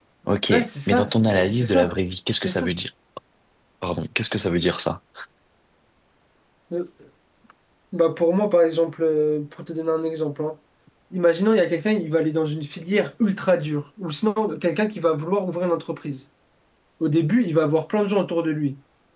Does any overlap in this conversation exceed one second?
Yes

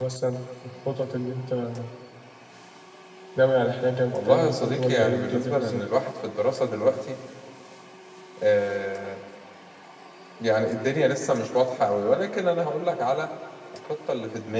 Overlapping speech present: Yes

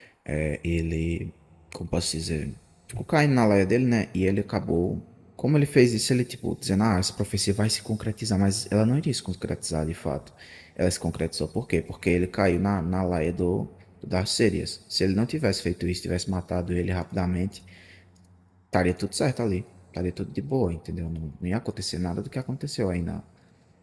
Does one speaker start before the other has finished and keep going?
No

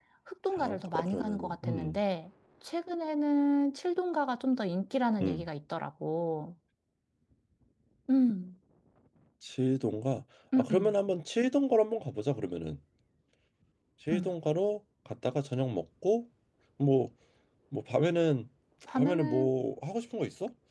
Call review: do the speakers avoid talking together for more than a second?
No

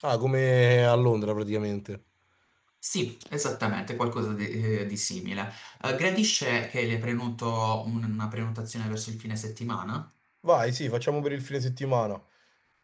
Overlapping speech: No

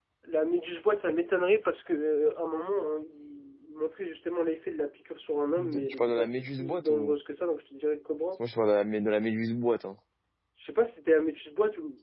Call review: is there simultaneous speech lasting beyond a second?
Yes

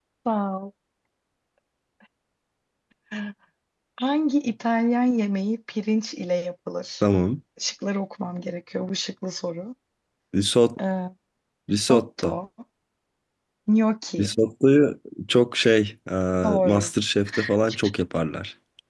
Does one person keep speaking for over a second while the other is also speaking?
No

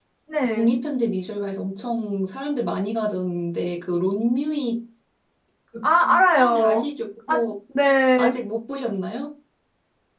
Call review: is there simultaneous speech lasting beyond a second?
No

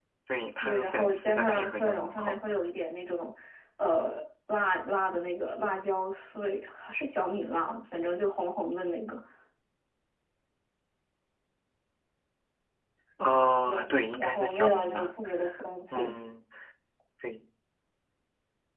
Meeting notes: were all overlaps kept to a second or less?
No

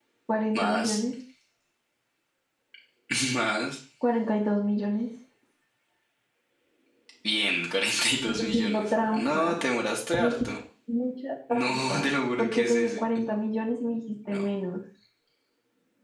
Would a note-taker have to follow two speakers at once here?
Yes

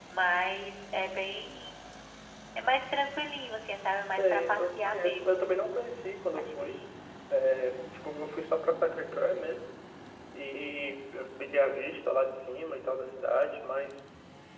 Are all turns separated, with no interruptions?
No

